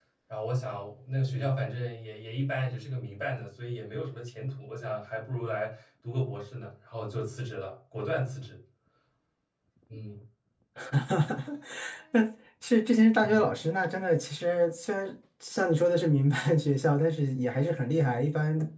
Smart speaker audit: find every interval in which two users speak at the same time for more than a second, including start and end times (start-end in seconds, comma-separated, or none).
none